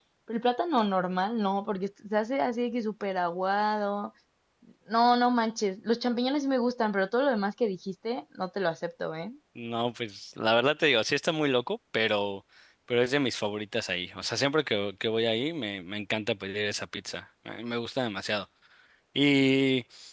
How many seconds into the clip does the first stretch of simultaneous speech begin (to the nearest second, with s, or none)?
none